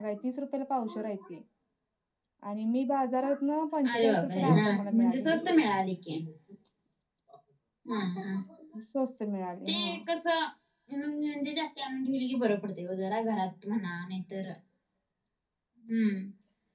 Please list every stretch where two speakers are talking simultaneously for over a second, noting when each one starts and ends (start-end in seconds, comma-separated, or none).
3.9-5.5